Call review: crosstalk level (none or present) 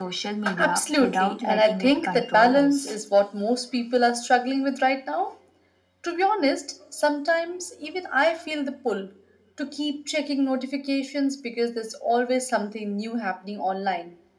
present